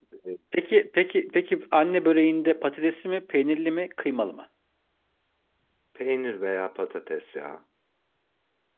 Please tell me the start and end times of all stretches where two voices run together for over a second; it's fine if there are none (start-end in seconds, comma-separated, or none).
none